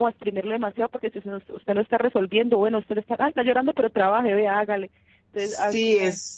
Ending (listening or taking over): taking over